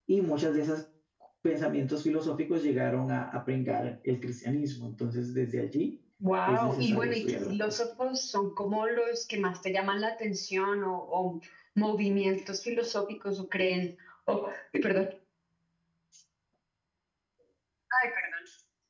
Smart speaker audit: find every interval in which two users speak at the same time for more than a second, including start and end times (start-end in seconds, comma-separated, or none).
6.5-7.7